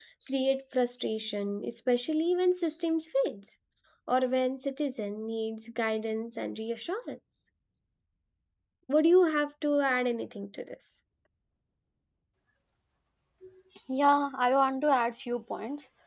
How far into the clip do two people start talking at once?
none

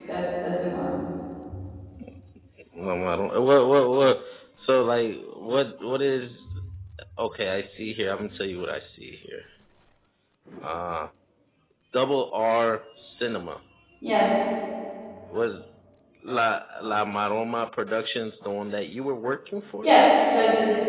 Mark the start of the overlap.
none

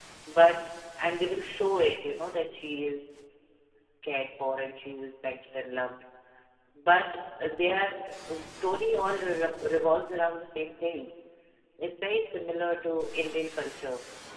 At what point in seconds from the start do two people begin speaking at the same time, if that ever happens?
none

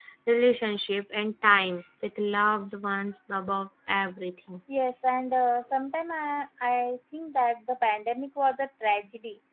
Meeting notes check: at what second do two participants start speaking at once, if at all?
none

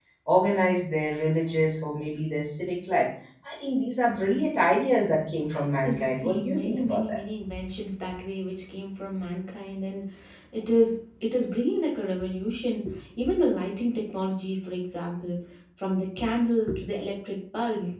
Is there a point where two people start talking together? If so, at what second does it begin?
5.5 s

